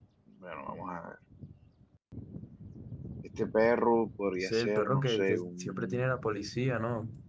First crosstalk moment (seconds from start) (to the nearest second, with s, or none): 4 s